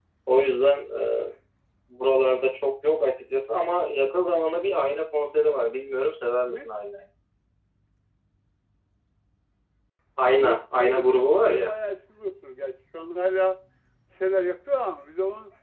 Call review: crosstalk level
present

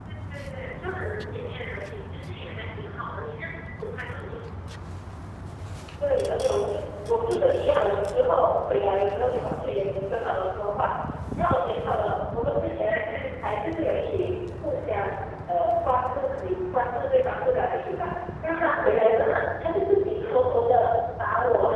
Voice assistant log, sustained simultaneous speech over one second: none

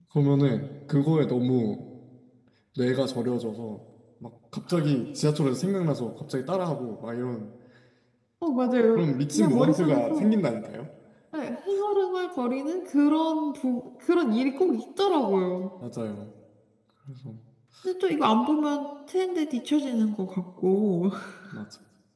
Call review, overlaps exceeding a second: present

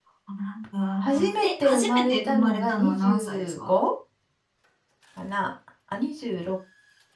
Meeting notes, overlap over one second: present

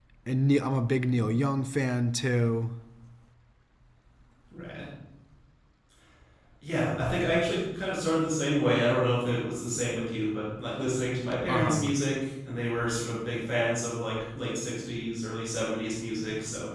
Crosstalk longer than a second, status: none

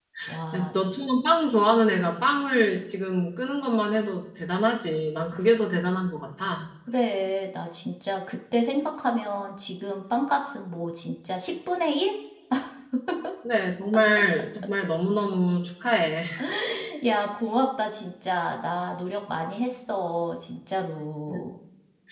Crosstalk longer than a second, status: none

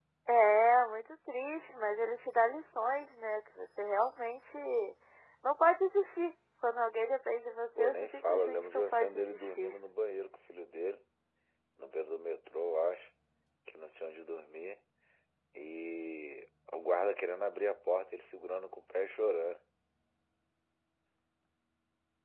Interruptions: present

